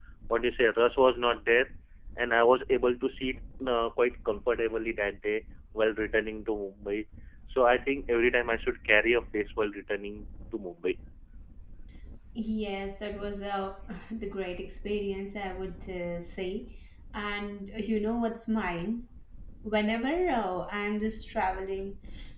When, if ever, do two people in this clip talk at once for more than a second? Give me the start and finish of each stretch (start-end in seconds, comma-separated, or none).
none